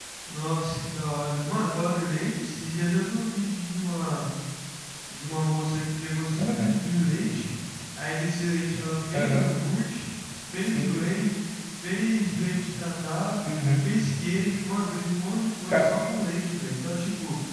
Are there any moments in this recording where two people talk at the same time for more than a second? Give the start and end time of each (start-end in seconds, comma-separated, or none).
none